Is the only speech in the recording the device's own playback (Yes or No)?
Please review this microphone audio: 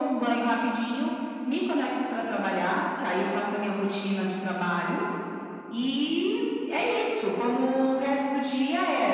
Yes